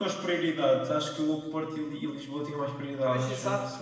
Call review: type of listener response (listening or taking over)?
taking over